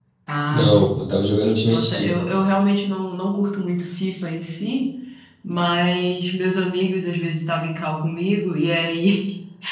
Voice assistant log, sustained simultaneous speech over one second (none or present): none